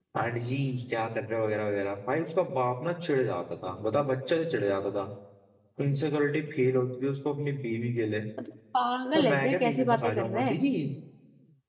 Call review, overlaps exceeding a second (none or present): present